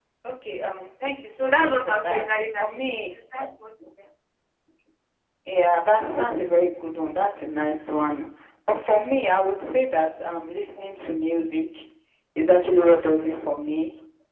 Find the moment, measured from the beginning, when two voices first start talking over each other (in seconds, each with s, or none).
1.4 s